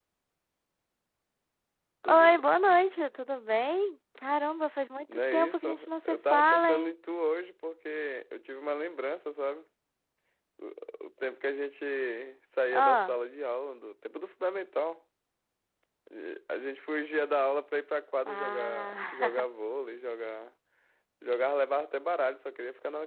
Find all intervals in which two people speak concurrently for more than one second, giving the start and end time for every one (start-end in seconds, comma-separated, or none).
5.3-6.9, 18.3-19.5